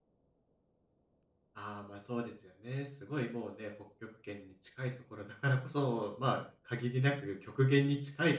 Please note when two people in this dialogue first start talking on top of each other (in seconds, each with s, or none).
none